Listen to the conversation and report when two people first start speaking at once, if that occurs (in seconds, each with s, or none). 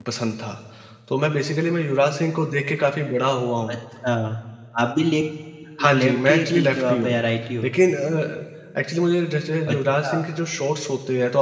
5.9 s